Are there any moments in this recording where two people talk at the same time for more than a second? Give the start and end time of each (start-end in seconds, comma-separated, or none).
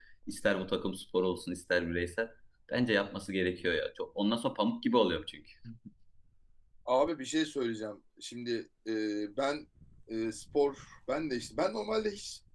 none